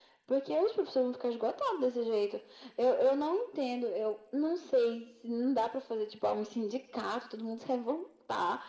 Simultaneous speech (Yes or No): No